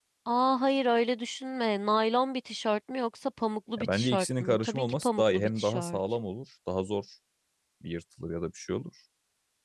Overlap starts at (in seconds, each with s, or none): 3.8 s